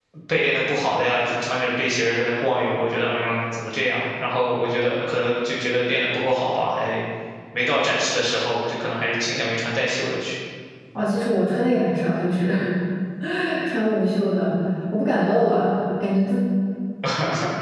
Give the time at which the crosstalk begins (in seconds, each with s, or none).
none